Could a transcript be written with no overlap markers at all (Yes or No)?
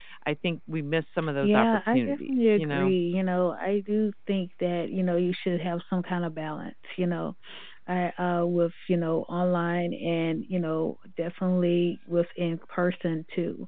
No